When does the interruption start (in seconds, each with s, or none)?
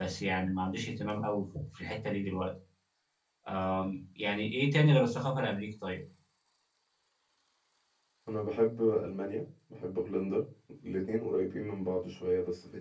none